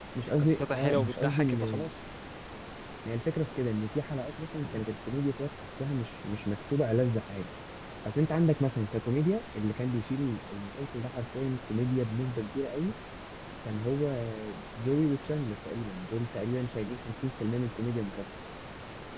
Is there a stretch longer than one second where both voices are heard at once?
Yes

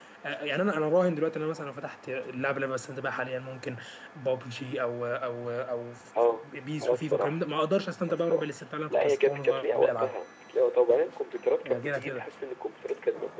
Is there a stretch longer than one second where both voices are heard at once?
Yes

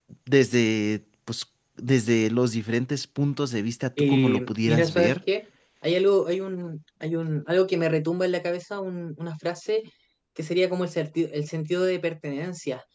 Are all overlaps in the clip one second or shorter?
No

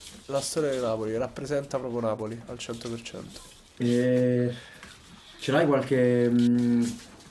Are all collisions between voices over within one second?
Yes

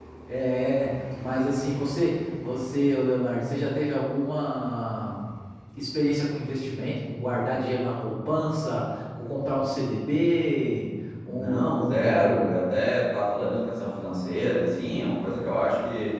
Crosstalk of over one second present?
Yes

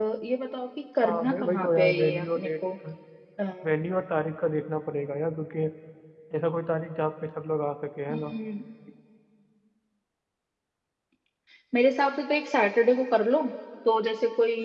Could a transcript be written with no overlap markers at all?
No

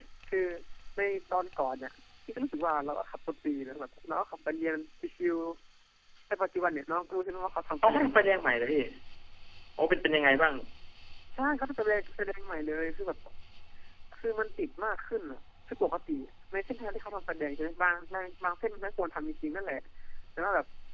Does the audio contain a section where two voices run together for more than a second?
No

